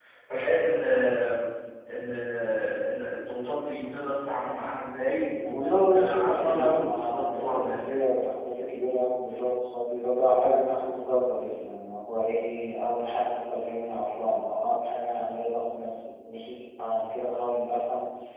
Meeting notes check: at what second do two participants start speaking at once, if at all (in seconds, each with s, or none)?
5.5 s